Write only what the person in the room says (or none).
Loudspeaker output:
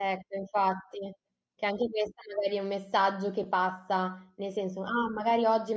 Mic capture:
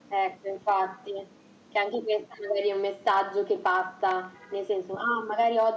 none